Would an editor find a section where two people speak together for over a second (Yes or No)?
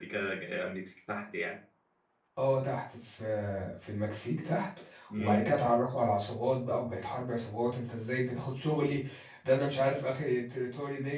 No